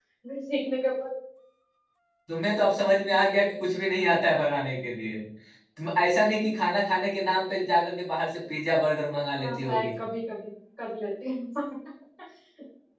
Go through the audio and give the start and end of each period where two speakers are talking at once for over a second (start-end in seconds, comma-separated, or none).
none